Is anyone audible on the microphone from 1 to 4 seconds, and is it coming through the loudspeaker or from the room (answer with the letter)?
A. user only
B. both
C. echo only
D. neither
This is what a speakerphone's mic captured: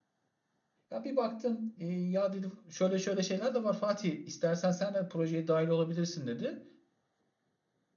A